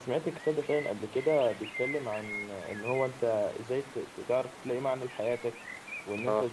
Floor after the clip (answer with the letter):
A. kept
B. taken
A